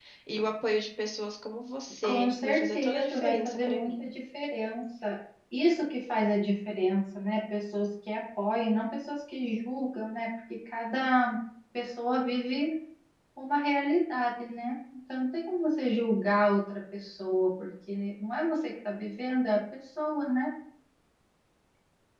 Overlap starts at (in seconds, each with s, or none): 2.0 s